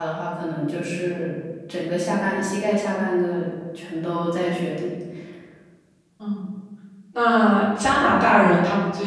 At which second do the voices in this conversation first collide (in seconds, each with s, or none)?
none